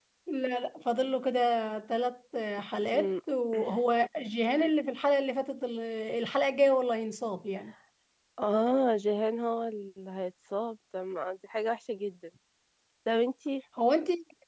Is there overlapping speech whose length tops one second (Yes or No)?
No